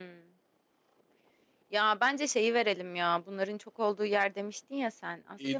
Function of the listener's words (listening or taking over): taking over